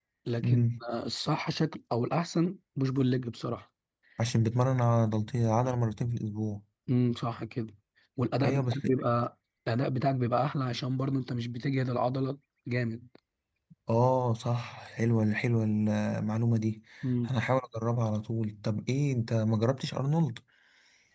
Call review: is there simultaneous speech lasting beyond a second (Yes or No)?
No